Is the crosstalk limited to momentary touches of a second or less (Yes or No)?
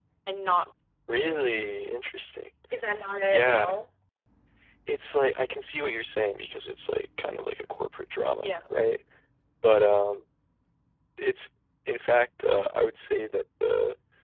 Yes